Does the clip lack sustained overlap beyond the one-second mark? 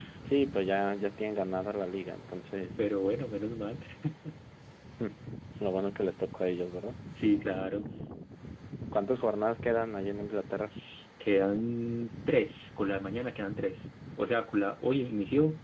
Yes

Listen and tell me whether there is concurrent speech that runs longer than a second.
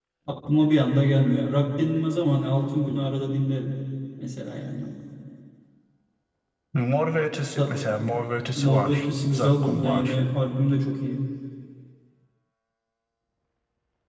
Yes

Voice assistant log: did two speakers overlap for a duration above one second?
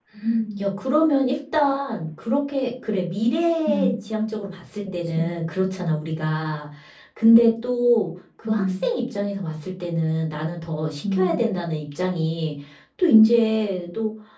No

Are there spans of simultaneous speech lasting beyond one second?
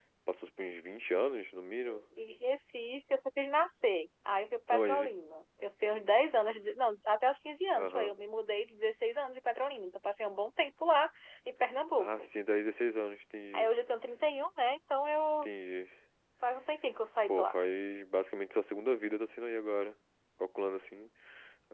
No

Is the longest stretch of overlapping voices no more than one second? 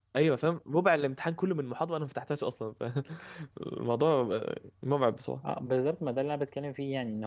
Yes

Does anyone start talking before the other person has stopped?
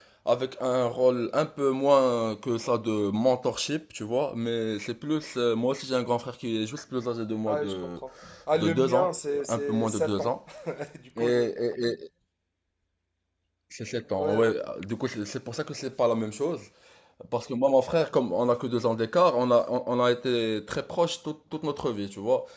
Yes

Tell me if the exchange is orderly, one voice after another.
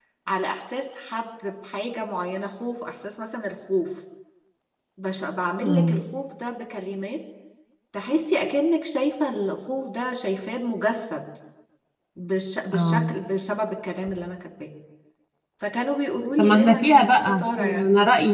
No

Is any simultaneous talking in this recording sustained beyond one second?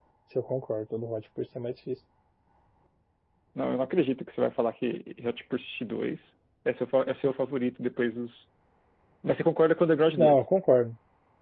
No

